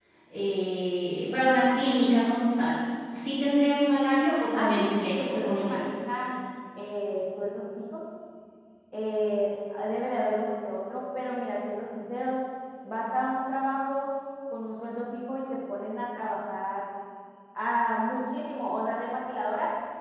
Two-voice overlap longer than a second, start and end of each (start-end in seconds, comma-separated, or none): 4.5-5.8